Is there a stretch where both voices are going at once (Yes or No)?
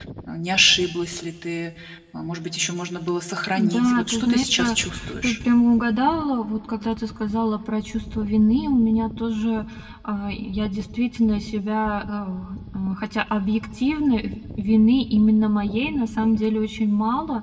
Yes